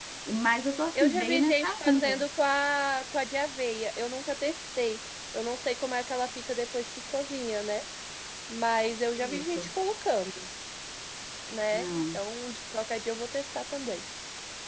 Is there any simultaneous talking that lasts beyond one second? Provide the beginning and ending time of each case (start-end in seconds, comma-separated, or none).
0.9-2.1